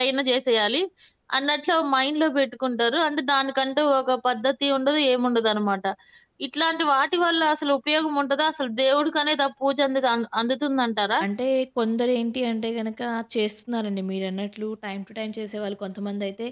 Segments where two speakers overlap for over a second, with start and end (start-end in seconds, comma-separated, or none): none